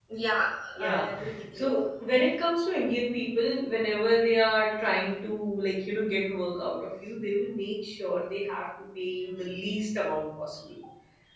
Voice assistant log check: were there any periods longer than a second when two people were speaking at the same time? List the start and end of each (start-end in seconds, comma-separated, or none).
none